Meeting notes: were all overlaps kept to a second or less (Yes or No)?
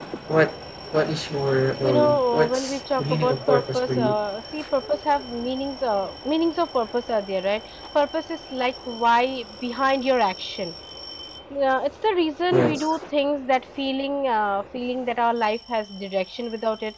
No